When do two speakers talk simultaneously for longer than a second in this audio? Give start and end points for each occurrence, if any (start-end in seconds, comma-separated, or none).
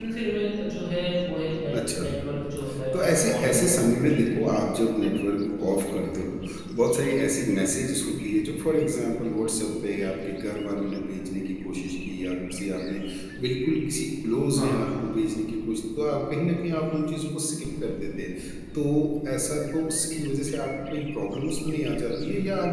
2.9-4.3